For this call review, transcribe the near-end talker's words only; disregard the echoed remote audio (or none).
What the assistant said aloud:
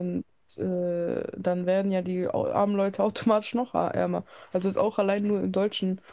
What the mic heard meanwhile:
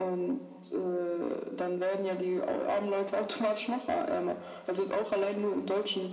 none